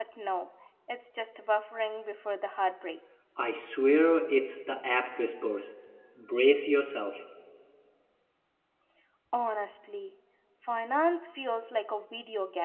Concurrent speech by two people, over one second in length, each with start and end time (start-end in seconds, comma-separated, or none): none